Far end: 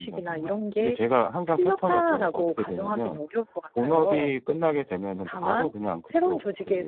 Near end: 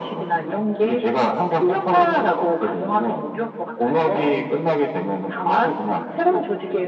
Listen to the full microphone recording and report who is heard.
echo only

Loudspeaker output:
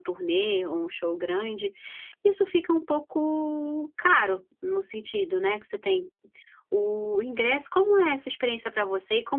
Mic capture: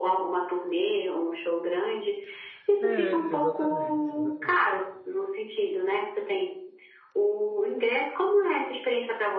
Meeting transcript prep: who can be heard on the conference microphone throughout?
both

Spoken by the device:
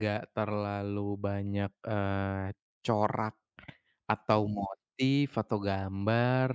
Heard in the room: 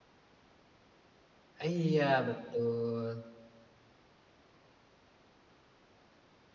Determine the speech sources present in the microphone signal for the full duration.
user only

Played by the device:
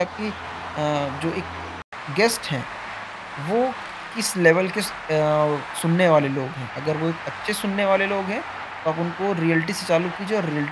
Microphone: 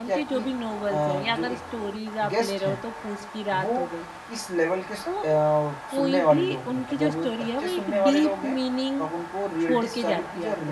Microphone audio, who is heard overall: both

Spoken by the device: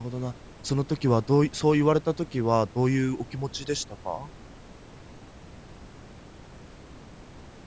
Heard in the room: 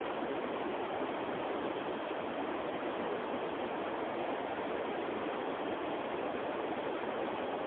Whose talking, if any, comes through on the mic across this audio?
neither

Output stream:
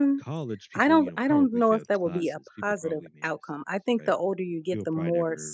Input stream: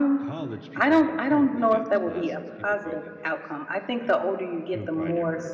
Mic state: echo only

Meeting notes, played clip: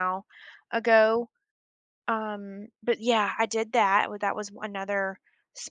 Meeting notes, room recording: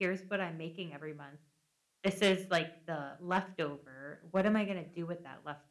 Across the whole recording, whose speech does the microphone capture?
user only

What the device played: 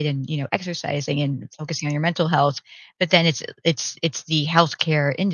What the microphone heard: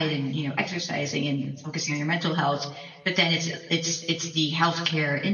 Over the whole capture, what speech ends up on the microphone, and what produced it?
echo only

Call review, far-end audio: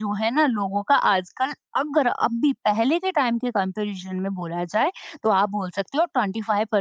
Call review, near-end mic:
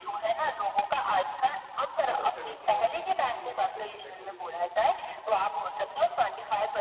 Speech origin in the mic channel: both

